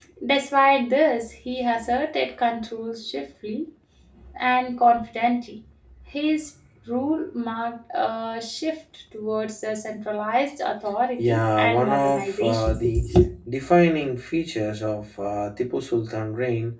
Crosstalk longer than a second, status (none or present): present